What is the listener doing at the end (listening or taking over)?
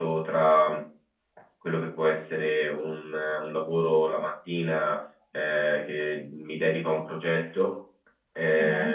listening